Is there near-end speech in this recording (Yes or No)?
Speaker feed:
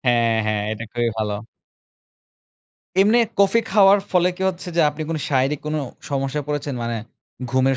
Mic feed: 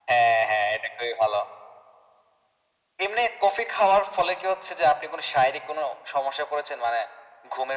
No